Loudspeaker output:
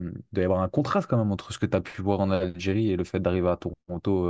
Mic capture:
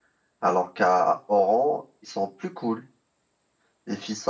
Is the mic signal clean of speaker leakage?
Yes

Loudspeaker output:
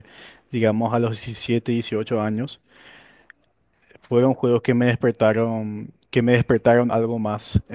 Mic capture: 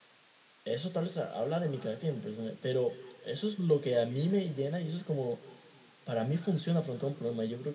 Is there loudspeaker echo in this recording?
No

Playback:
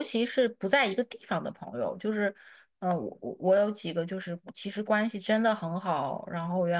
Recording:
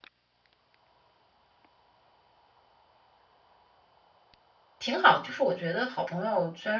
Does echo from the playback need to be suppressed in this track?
No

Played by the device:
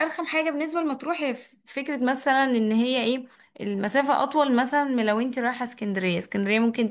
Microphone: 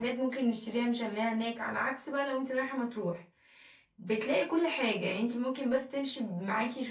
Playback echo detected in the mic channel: No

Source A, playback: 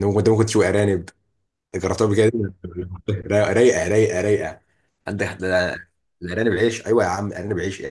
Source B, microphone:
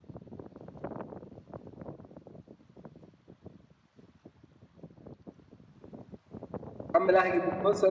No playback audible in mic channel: Yes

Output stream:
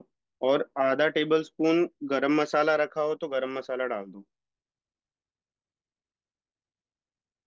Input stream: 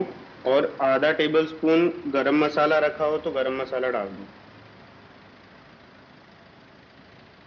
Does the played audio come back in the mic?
Yes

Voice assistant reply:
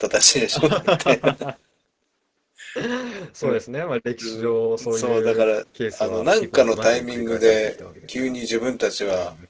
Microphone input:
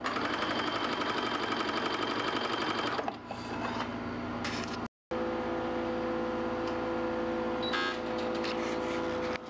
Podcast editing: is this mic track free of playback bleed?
Yes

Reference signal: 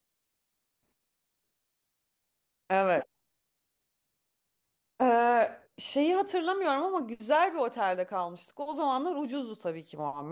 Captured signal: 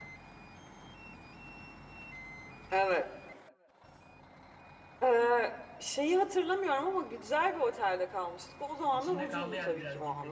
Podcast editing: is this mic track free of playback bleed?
No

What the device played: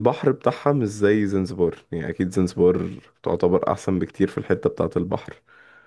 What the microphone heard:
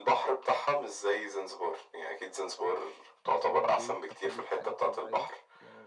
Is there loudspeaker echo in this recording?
Yes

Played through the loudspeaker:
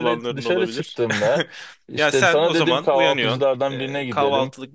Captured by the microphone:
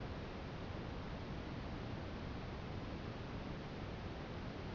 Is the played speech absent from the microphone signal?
Yes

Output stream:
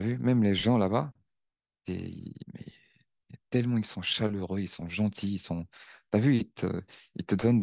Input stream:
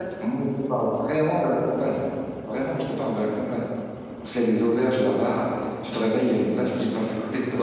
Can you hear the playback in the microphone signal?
No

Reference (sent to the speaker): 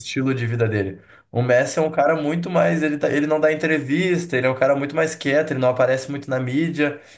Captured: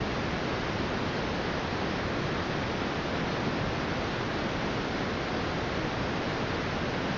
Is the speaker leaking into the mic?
No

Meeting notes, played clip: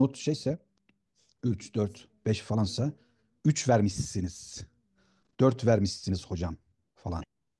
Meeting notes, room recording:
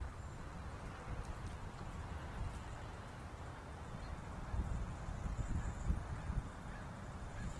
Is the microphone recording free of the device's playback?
Yes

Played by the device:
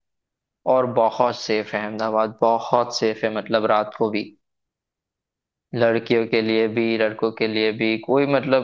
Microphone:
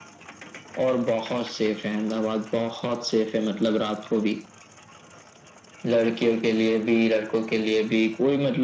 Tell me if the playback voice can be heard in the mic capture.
Yes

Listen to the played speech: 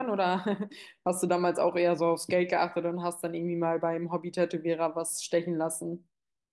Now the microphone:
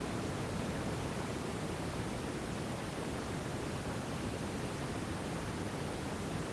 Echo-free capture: Yes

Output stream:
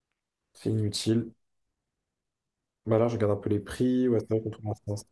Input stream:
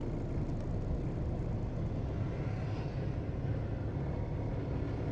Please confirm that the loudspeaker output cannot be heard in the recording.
Yes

